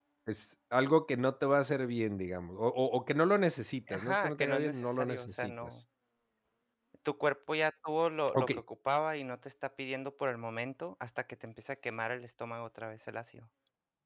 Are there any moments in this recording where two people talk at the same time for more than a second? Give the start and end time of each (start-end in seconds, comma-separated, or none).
3.9-5.8